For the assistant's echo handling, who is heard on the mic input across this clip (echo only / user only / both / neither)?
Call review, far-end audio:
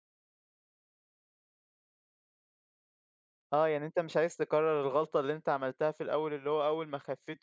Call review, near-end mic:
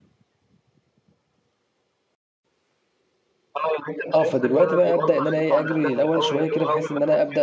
both